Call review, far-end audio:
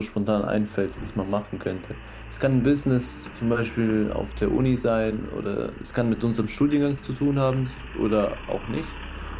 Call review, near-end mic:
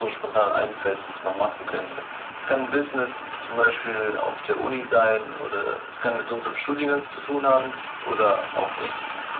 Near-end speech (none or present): none